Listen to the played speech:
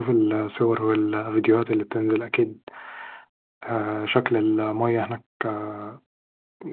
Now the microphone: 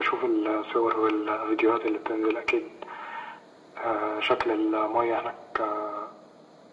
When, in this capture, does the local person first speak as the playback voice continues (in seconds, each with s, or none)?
none